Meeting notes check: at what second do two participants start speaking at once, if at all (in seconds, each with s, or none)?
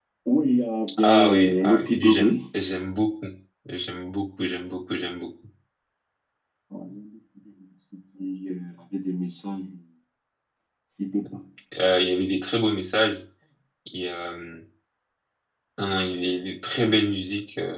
1.0 s